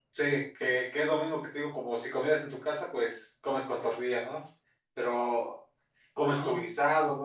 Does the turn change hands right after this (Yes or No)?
No